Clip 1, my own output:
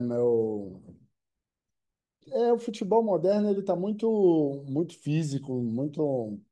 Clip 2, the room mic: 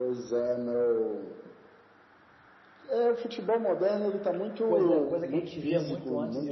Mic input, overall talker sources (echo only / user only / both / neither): both